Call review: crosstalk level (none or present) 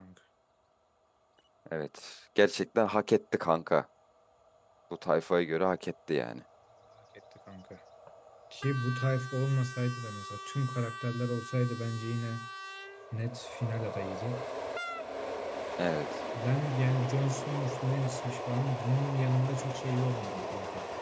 none